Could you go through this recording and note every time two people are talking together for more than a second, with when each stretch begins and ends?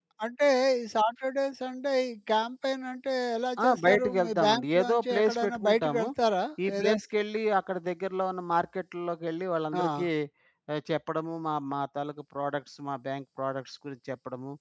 3.6-6.0

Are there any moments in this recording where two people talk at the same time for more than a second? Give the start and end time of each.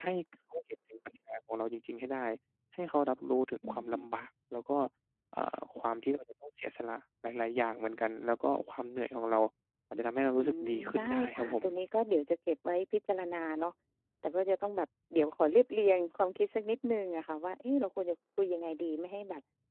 10.4-11.6

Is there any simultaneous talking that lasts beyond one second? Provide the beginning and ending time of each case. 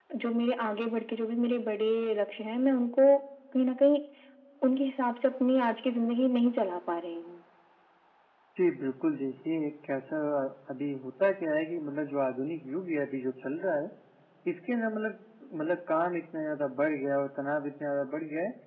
none

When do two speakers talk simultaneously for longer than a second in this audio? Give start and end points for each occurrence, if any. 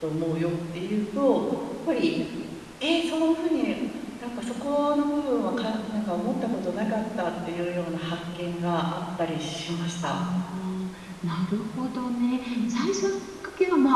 none

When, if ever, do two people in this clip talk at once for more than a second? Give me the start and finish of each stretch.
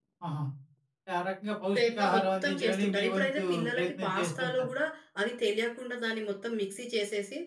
1.7-4.7

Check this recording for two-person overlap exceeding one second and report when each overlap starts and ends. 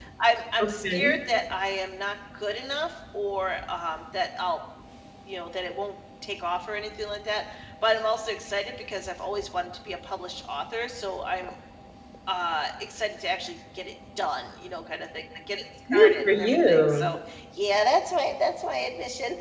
15.9-17.1

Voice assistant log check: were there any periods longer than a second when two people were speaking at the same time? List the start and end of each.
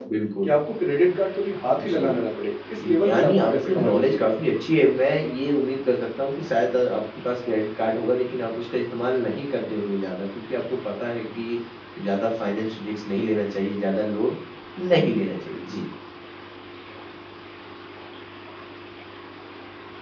2.8-4.3

